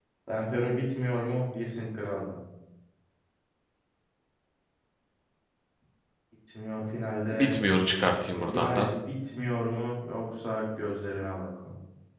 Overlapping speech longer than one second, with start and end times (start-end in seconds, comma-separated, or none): none